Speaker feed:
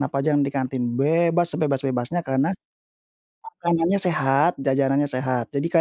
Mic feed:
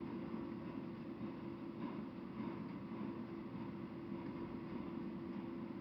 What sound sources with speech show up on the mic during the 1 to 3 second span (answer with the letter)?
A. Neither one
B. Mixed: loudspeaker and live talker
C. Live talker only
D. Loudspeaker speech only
A